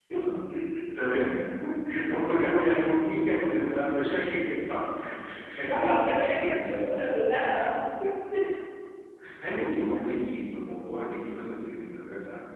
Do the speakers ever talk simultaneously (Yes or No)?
Yes